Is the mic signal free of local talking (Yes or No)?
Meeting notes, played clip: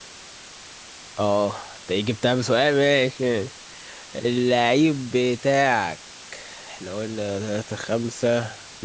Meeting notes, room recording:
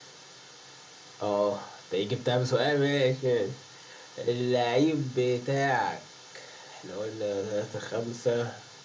Yes